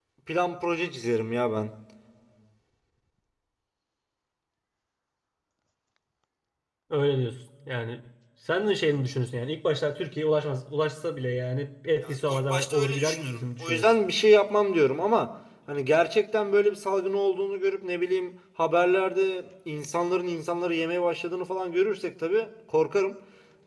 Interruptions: present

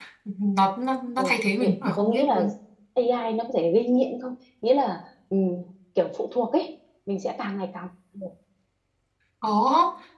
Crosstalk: present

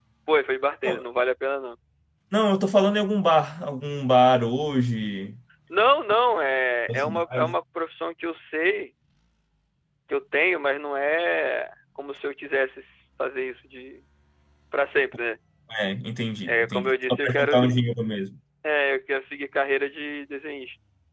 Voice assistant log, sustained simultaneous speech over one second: present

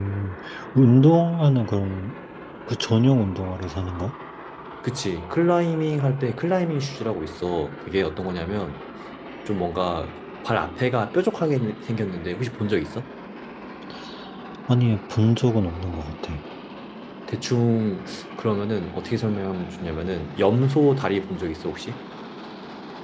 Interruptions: none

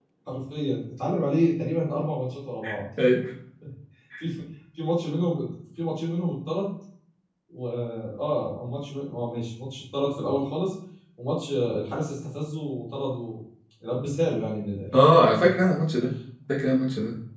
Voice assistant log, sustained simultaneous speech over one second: none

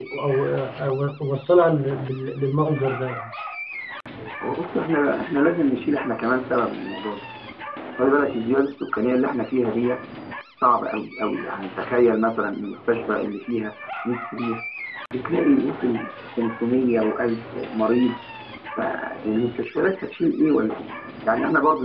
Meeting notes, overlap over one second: none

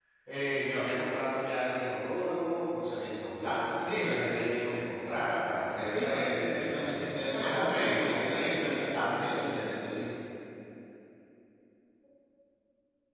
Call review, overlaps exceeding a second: present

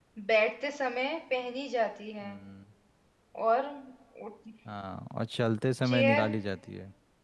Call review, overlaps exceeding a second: none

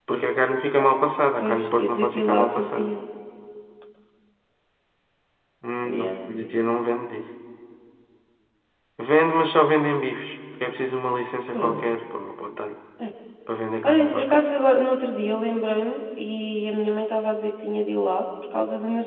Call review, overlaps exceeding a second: present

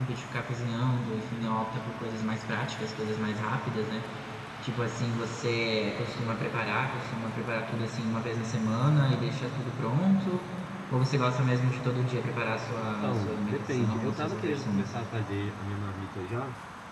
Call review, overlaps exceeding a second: present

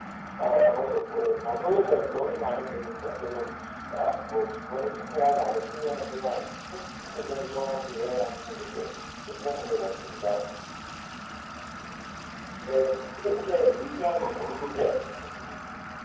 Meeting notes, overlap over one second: none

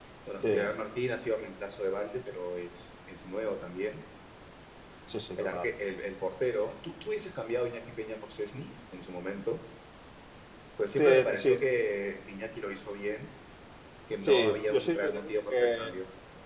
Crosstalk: present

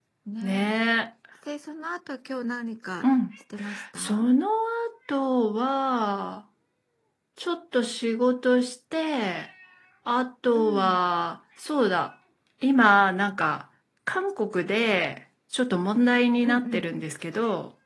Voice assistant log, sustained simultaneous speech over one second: none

